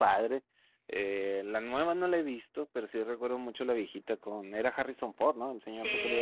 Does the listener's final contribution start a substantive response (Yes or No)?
Yes